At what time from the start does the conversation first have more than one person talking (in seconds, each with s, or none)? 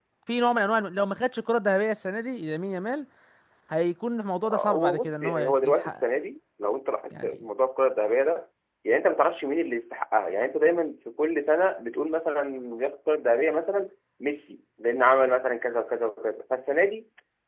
4.4 s